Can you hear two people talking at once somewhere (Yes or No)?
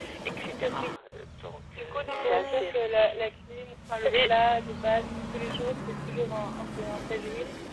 Yes